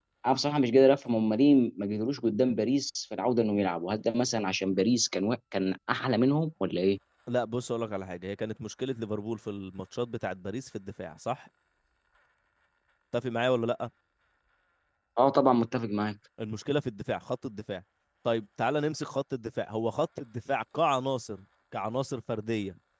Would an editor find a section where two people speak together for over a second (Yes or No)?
No